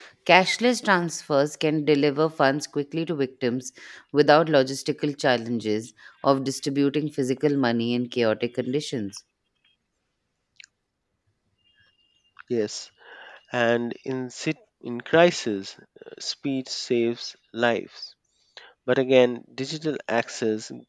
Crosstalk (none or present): none